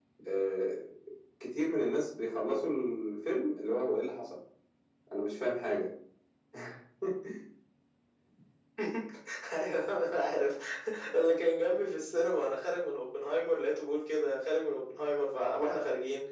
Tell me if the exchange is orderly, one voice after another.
Yes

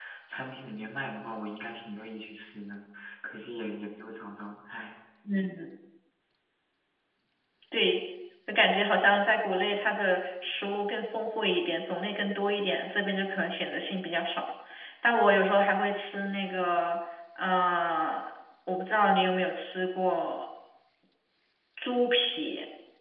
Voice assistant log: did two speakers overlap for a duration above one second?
No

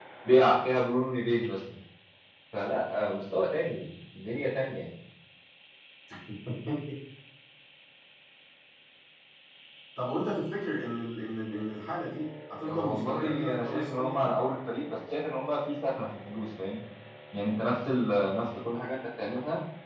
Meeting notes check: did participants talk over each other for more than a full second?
Yes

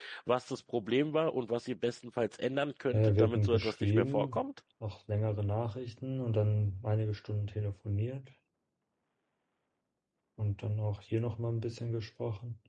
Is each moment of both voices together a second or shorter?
No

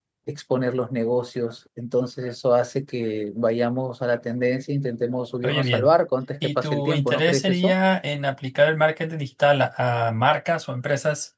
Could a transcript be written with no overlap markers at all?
No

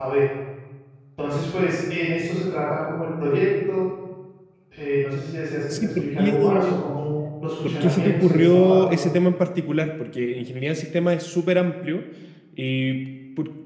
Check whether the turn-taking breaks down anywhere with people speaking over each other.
Yes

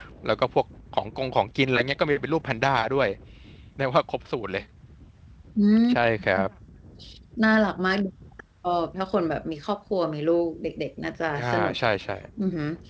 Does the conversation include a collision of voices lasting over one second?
No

